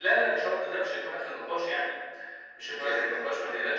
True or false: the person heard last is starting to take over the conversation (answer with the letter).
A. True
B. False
B